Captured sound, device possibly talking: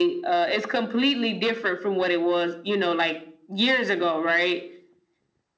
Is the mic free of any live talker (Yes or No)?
Yes